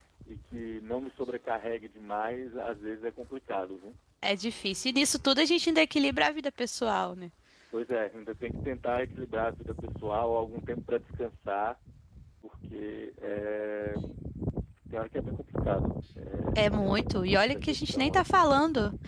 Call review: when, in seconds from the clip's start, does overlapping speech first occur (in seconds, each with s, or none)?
16.6 s